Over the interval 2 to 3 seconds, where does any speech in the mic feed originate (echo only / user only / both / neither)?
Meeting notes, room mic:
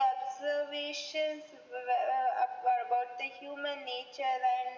echo only